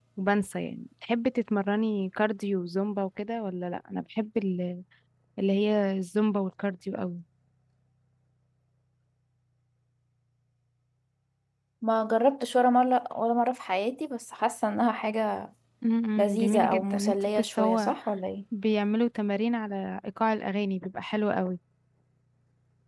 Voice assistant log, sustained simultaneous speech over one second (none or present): present